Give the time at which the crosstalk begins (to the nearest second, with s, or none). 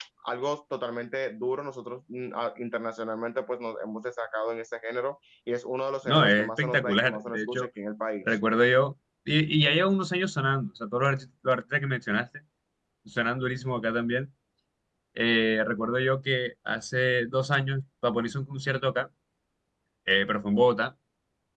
6 s